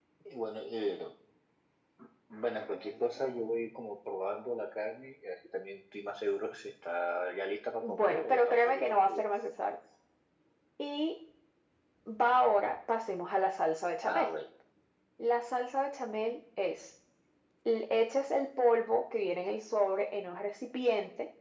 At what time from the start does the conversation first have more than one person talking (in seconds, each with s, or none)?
7.8 s